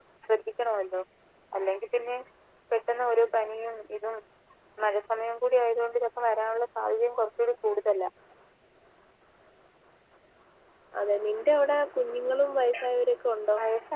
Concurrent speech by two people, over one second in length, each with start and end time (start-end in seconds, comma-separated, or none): none